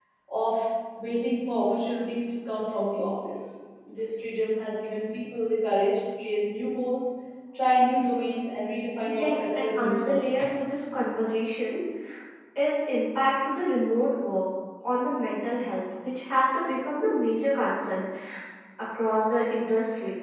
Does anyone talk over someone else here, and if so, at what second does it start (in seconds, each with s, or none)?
9.1 s